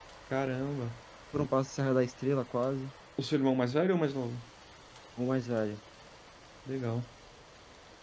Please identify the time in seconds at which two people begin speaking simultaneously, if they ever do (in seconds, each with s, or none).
none